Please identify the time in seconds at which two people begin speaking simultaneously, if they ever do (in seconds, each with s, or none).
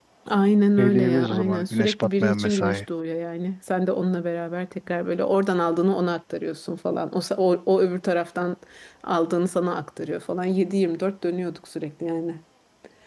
0.8 s